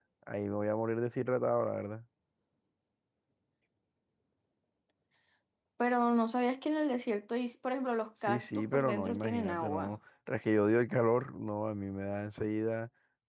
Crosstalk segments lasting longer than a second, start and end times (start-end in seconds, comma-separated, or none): 8.2-9.9